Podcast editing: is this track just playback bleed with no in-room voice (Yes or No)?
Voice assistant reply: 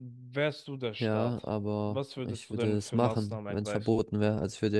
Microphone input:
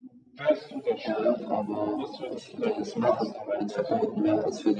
Yes